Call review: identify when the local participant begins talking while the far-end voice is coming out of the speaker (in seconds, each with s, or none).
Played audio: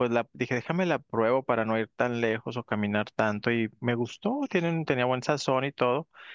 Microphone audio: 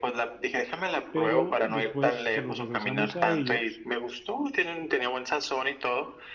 1.1 s